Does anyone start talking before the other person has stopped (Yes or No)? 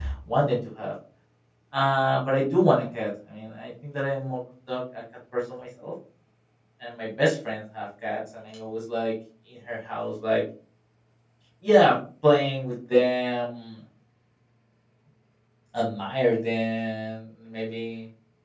No